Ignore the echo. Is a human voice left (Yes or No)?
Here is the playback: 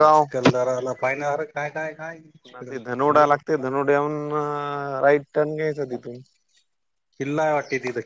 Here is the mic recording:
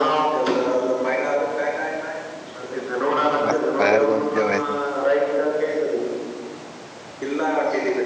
Yes